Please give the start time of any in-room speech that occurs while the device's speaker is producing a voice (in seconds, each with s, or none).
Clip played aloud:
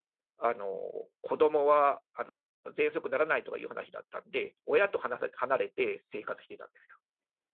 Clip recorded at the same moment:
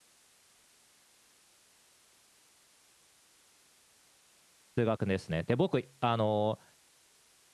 4.8 s